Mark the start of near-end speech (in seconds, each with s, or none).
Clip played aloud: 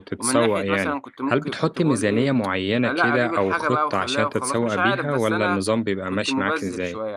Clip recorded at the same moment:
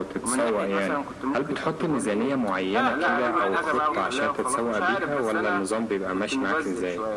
2.7 s